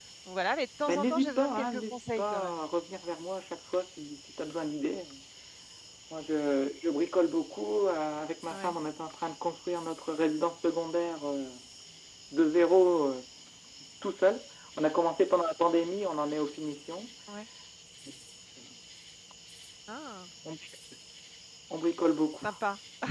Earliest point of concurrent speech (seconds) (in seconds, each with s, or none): 0.9 s